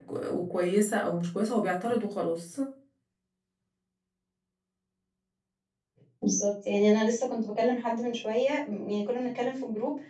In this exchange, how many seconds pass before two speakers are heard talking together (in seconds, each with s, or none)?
none